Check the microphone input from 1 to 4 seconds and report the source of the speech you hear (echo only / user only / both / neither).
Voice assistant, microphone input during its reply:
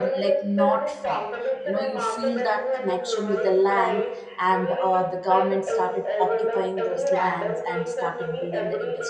both